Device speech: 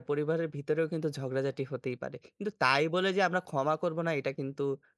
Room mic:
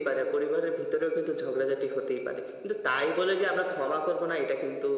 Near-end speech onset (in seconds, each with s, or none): none